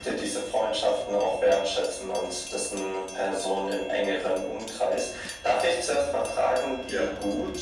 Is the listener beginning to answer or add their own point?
No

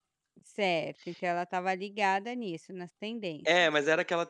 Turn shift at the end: Yes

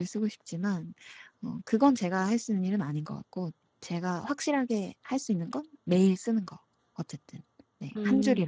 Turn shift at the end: Yes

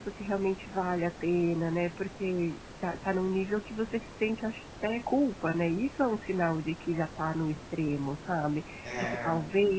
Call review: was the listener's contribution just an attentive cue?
Yes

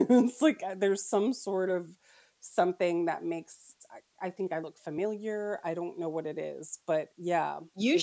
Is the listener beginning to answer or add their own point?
Yes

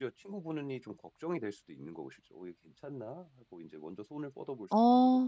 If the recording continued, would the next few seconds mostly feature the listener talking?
Yes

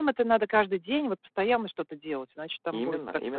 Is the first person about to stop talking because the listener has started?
Yes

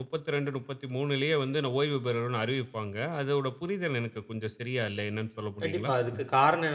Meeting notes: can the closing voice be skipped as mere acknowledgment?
No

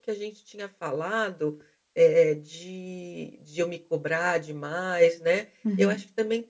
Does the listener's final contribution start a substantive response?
No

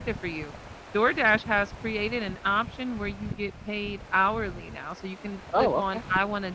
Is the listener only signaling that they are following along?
Yes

